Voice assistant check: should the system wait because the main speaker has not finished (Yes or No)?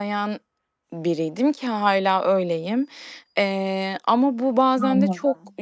Yes